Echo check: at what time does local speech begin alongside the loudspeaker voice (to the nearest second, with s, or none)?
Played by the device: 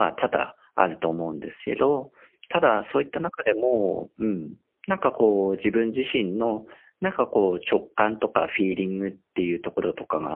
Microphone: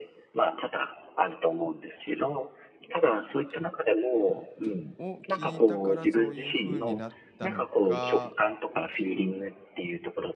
5 s